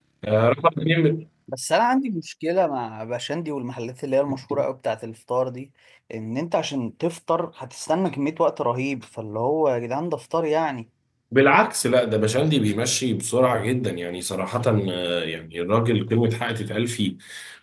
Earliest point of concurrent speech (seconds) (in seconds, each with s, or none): none